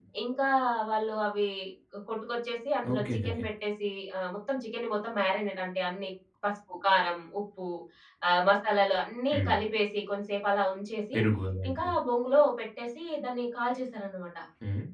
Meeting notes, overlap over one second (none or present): none